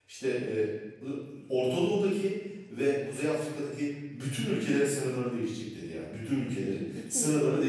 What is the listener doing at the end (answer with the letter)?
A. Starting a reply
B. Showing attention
B